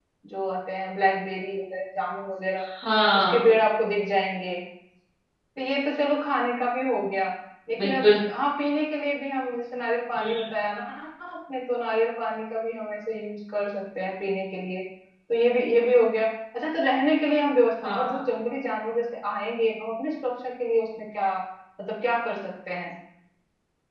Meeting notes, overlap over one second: none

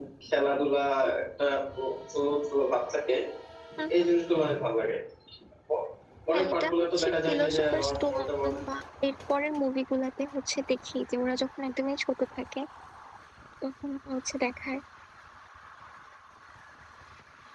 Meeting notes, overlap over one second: present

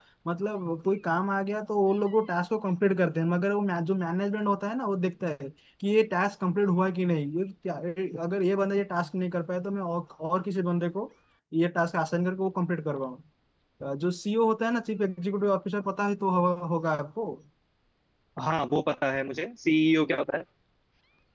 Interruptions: none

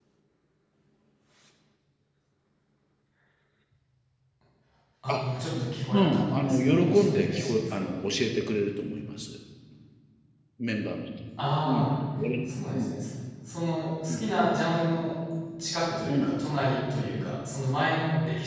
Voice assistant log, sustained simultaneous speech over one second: present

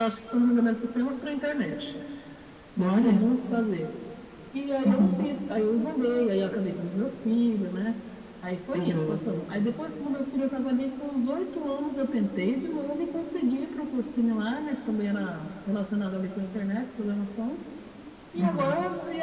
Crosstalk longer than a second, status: none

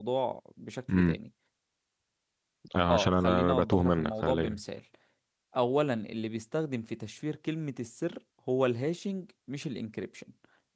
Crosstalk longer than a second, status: present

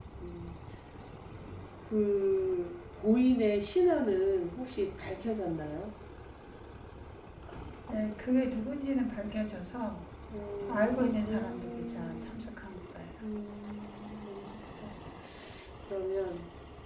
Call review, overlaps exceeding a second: present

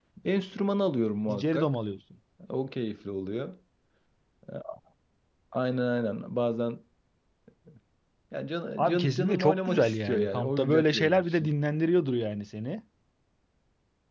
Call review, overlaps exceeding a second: present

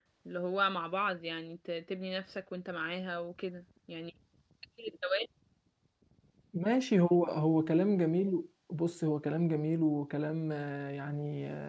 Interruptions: none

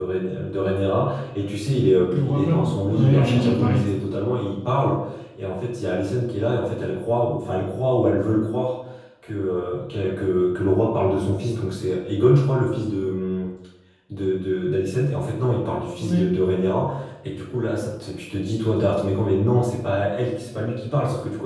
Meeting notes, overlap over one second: present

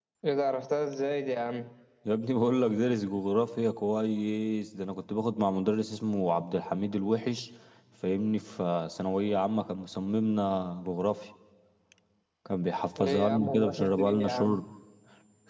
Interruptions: present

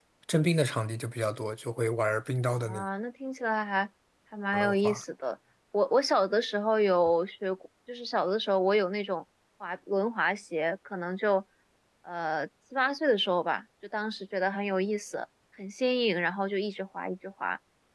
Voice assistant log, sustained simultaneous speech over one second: none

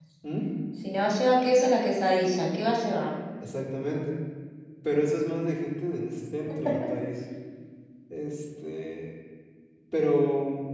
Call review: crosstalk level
none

